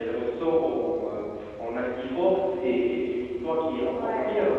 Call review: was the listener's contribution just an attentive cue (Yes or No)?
No